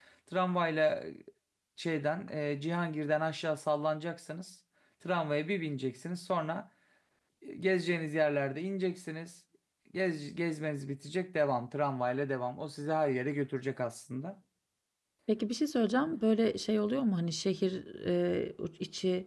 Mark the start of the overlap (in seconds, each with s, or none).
none